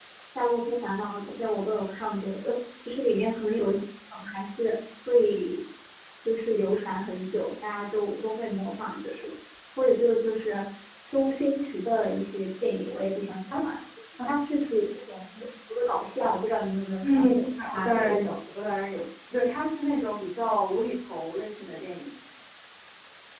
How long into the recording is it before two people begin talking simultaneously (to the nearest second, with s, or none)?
17 s